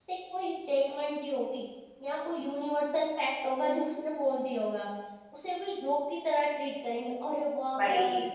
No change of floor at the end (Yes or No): Yes